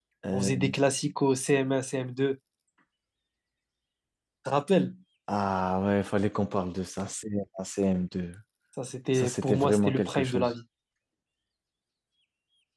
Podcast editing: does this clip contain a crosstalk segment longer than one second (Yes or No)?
Yes